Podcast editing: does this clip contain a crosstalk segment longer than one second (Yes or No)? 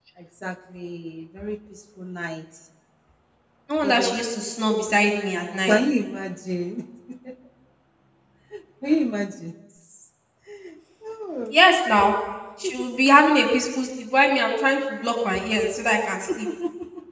No